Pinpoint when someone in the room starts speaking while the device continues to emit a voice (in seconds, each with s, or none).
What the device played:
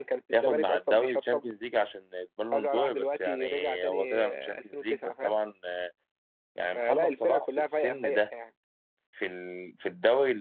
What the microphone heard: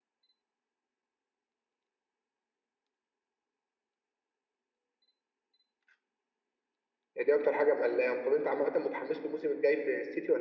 7.2 s